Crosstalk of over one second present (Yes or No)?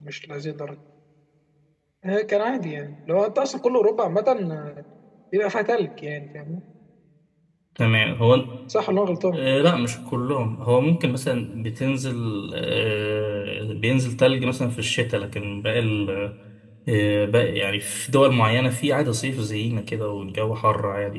No